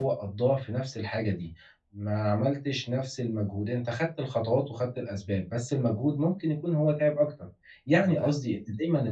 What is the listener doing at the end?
listening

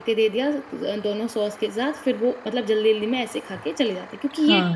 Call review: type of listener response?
taking over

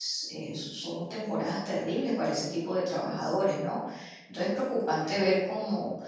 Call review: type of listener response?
listening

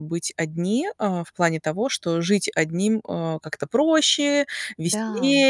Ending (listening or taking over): listening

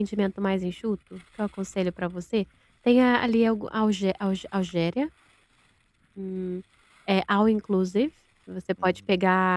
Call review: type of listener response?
listening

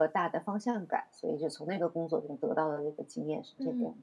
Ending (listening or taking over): taking over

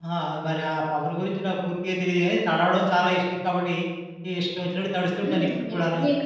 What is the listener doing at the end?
taking over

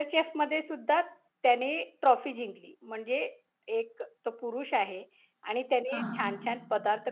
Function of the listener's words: listening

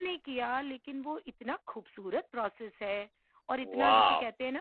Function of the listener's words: listening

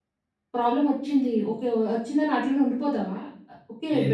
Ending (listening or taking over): listening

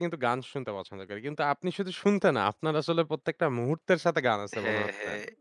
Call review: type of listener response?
taking over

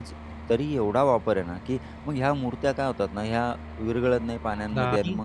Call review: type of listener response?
listening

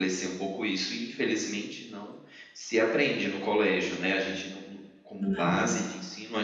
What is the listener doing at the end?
listening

